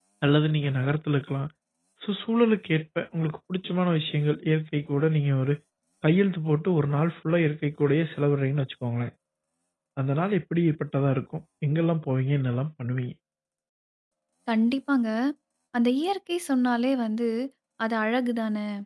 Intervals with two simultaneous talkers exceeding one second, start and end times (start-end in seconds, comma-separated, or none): none